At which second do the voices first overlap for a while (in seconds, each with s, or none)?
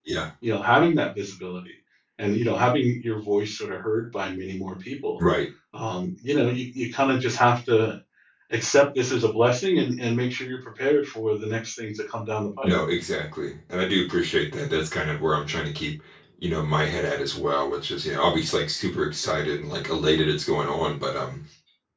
none